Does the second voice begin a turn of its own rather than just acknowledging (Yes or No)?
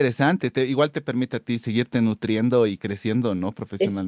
Yes